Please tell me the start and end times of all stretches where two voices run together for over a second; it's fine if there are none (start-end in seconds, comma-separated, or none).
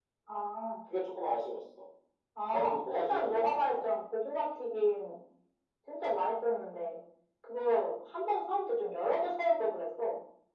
2.5-3.8